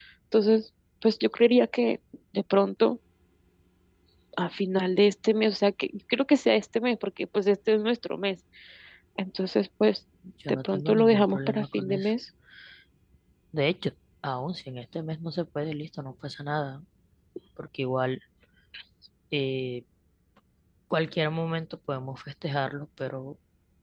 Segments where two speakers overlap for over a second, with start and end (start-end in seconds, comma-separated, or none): 10.5-12.1